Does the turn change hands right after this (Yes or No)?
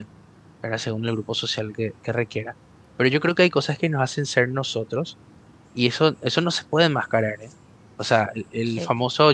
No